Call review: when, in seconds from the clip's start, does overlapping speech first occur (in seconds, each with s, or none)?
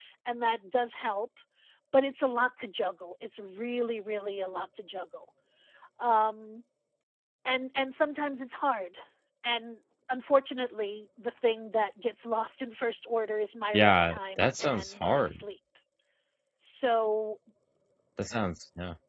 13.7 s